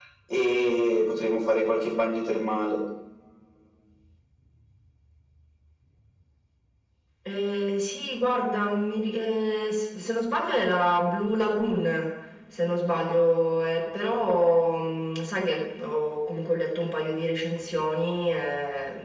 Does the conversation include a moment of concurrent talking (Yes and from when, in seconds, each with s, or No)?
No